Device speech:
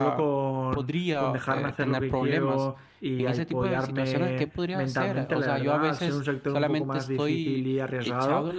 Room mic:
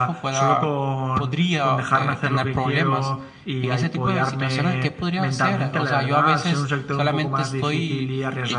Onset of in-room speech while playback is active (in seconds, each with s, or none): none